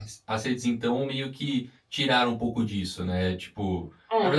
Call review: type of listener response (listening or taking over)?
listening